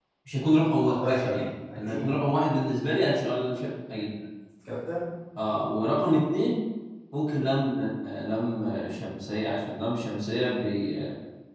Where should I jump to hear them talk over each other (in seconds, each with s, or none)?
0.8 s